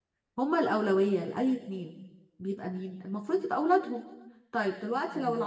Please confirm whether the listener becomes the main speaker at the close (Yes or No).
No